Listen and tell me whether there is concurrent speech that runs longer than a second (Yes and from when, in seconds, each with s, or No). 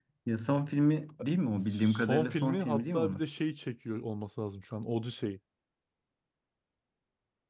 Yes, from 1.6 s